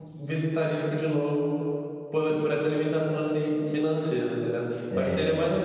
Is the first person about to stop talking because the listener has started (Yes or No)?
No